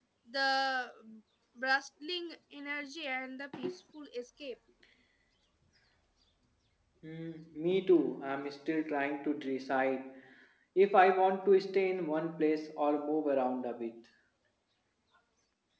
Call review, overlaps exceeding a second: none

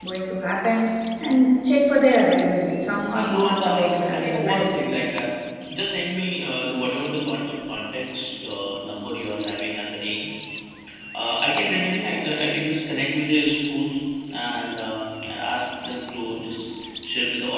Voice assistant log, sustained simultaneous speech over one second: present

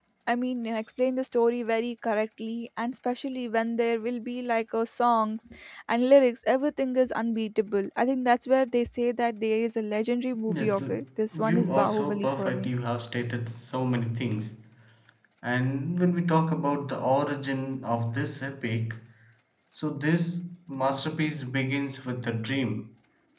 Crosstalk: present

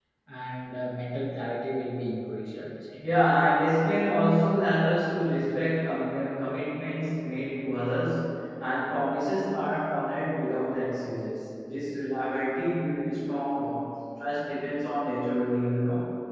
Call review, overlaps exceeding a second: none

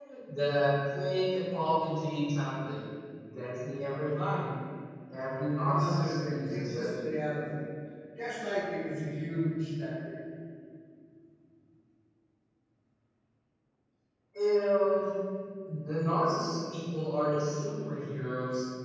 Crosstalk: present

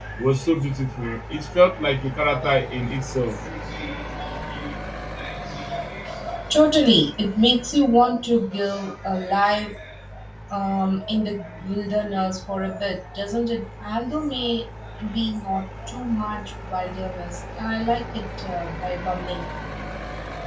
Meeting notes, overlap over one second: none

